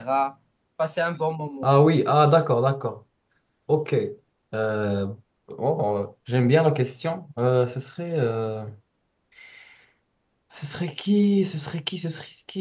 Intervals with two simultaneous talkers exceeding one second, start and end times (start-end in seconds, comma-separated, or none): none